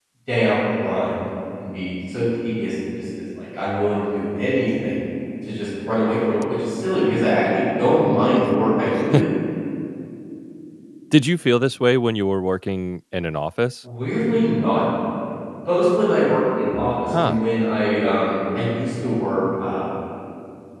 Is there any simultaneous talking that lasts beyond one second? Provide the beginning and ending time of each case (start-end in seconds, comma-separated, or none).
none